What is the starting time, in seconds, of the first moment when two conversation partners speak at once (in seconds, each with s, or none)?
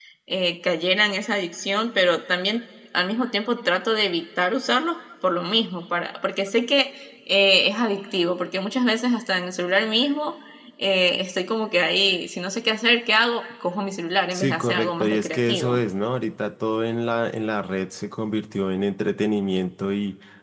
14.3 s